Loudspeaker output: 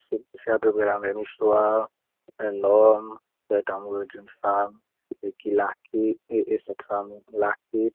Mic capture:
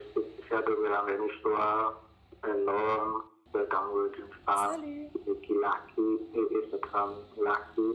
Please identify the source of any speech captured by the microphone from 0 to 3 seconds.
echo only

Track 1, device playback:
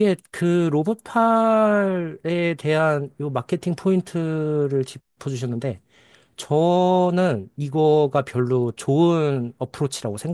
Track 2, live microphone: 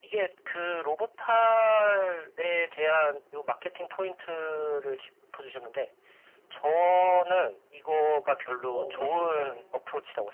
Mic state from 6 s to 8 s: echo only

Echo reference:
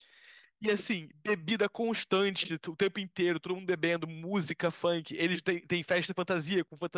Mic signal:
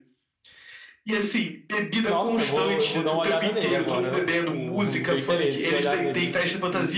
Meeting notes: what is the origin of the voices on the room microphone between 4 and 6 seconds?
both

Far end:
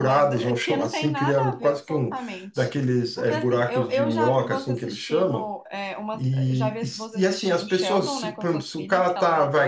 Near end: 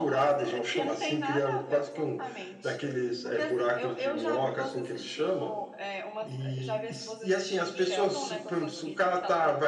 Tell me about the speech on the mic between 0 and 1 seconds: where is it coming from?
echo only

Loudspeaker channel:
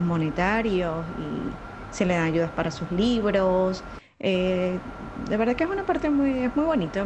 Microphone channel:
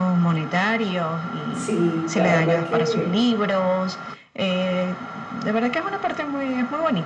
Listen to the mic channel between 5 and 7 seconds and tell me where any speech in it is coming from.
echo only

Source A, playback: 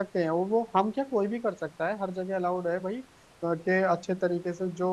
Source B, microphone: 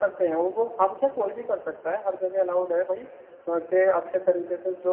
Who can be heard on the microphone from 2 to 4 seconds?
echo only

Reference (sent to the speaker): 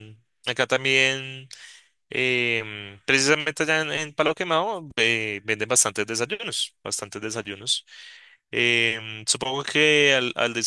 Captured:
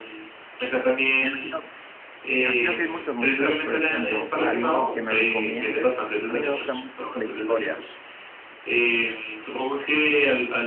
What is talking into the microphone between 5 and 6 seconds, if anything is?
both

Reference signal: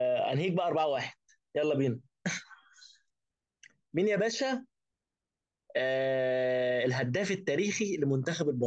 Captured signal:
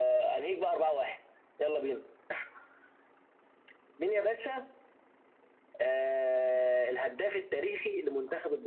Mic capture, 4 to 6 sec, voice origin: echo only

